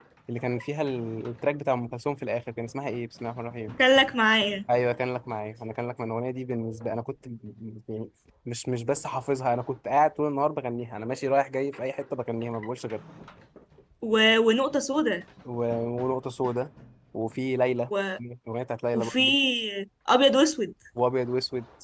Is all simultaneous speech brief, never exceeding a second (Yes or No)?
Yes